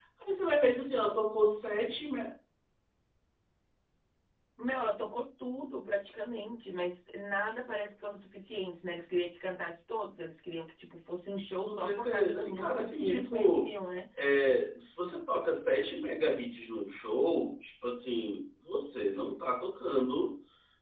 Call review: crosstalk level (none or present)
present